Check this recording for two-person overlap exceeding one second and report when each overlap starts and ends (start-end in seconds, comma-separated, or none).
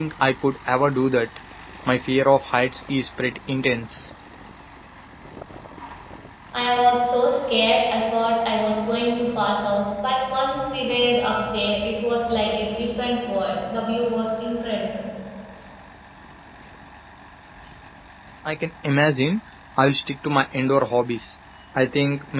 none